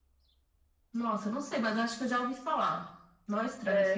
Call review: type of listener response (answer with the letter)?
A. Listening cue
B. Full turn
B